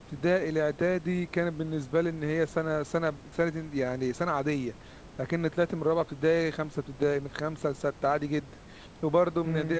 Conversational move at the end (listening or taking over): listening